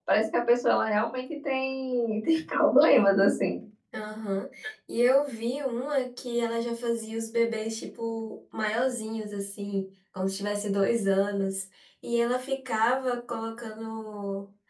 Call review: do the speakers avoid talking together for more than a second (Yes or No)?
Yes